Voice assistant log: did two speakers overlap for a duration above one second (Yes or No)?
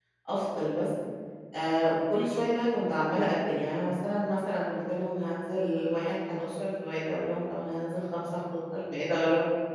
No